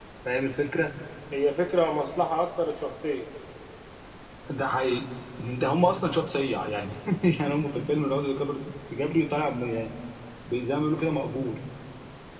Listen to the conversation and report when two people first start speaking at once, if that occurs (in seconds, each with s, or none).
none